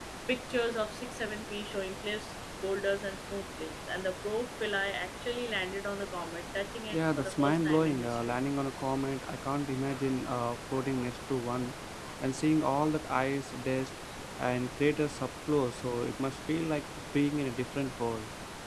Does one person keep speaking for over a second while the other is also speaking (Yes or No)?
Yes